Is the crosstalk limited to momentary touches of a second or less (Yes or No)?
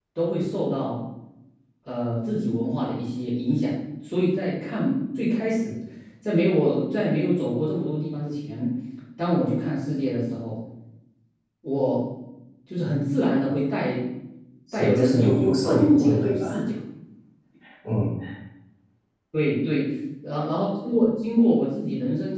No